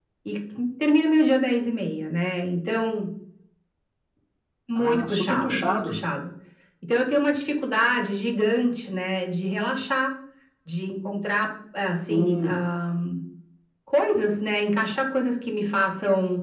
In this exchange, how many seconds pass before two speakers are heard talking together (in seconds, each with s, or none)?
4.8 s